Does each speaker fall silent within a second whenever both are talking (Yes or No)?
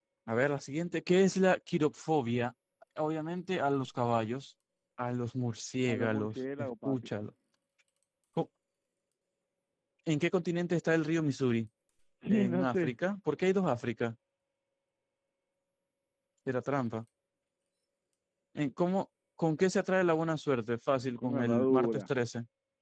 No